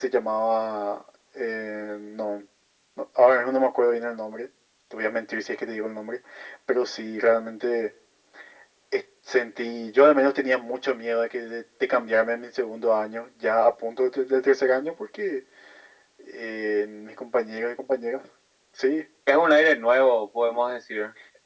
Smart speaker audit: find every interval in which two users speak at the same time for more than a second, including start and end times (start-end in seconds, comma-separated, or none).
none